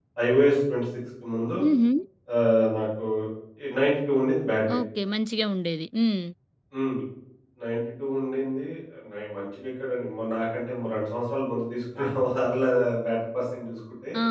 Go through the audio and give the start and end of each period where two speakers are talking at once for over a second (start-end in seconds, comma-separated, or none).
none